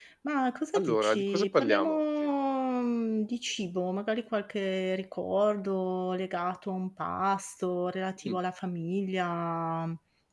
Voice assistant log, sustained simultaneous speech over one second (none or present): present